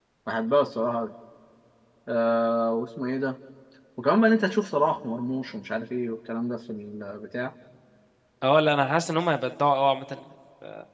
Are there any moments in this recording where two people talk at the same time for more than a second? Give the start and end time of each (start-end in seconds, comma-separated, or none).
none